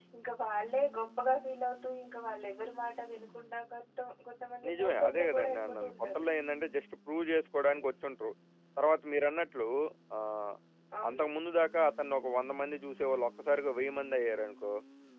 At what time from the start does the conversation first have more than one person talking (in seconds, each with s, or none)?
4.7 s